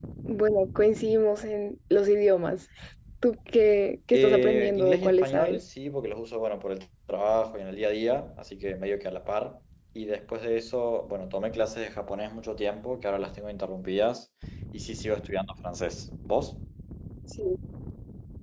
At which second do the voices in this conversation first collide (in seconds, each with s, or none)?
4.1 s